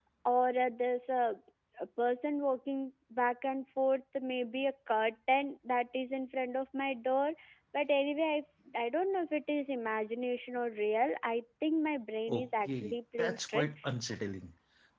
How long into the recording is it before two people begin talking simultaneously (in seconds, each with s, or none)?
12.3 s